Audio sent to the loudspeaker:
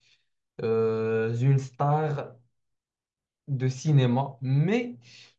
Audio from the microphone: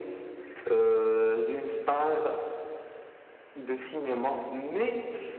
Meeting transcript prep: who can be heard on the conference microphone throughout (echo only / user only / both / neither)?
echo only